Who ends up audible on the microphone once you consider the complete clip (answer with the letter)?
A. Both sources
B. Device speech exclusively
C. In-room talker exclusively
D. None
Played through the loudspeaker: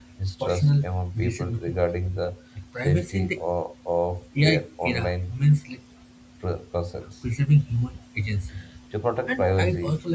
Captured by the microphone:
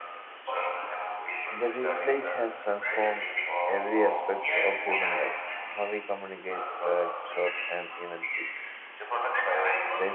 A